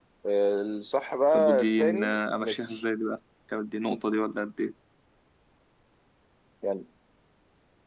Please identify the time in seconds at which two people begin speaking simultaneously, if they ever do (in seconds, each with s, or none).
1.3 s